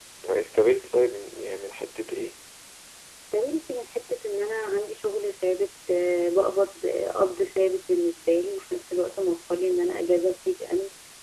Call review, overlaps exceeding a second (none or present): none